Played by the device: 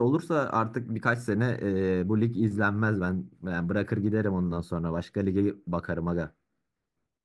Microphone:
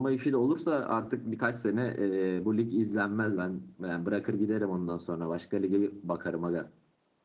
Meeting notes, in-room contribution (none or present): none